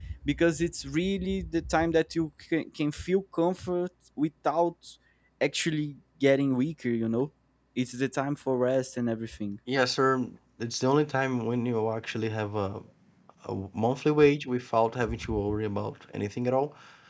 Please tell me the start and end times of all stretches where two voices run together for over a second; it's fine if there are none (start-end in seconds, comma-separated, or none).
none